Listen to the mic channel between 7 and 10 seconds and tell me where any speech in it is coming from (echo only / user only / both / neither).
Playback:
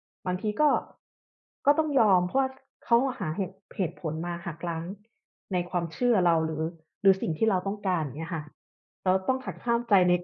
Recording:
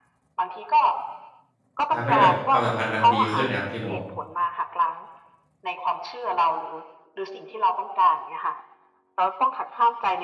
echo only